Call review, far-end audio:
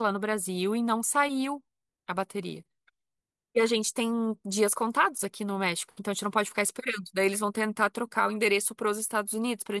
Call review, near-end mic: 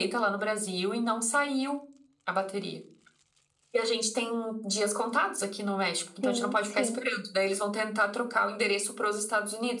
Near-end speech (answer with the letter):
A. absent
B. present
B